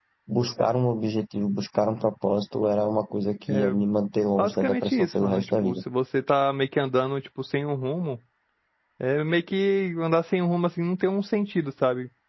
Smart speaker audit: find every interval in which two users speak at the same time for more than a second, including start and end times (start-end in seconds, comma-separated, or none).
4.4-5.8